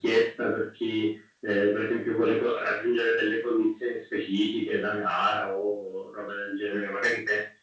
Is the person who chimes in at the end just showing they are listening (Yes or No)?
Yes